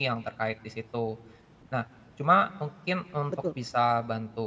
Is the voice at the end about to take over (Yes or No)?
No